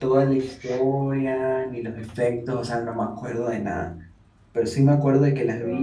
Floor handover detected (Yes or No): No